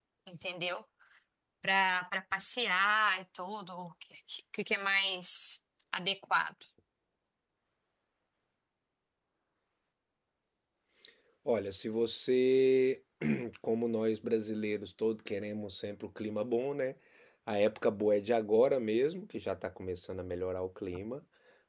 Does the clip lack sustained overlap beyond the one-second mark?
Yes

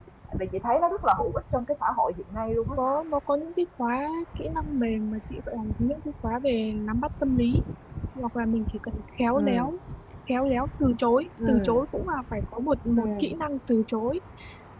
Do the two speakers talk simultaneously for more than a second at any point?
No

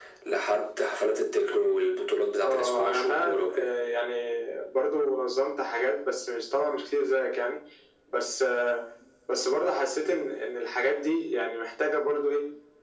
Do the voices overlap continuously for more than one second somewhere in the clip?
Yes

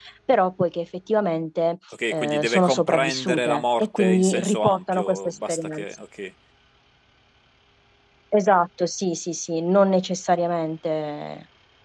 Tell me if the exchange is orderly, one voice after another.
No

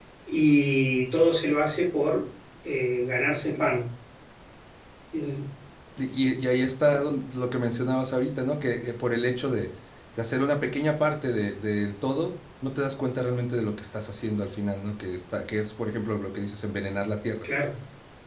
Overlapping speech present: No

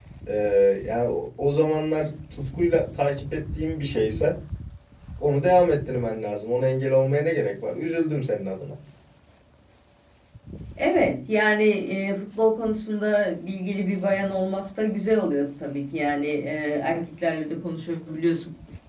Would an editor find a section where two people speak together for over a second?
No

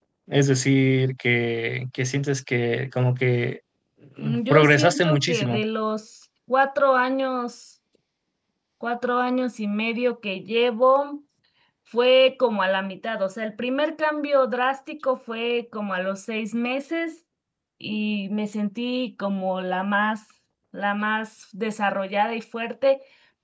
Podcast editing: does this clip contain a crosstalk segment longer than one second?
Yes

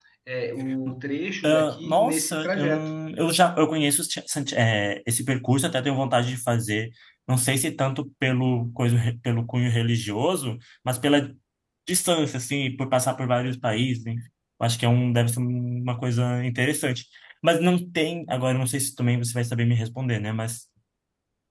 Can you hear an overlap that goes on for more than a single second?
Yes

